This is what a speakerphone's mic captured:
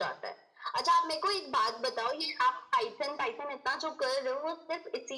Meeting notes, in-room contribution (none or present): none